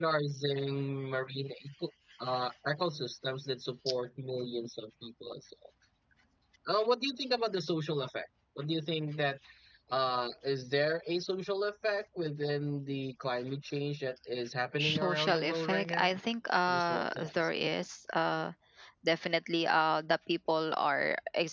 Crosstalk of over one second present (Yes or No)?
Yes